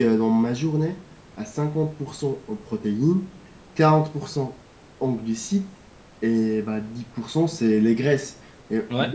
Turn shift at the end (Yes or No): No